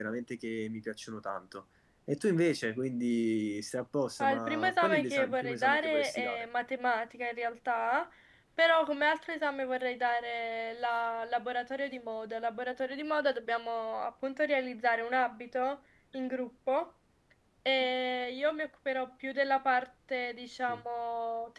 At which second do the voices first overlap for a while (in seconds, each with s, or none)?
4.2 s